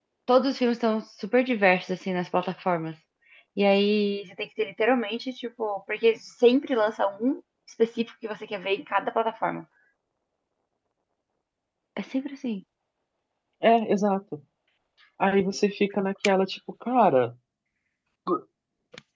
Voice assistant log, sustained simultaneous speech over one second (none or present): none